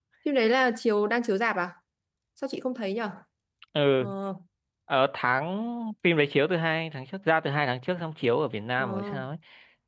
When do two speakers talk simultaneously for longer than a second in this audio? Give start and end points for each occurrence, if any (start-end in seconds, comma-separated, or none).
none